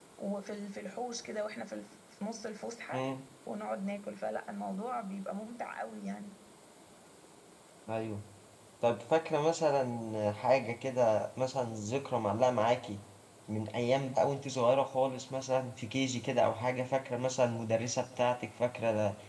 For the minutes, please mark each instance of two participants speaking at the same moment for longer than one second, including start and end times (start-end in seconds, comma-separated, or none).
none